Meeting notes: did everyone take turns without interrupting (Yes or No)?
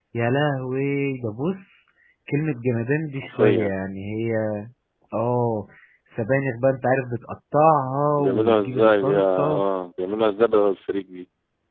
No